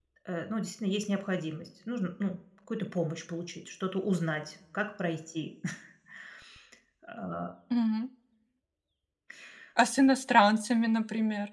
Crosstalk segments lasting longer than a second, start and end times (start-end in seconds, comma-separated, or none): none